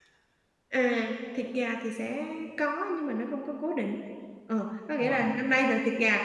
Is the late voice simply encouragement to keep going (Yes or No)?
Yes